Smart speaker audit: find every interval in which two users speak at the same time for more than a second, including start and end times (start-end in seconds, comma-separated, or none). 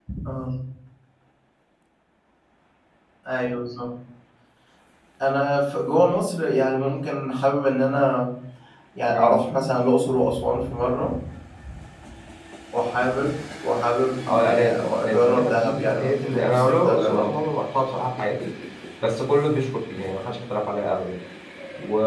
14.3-17.4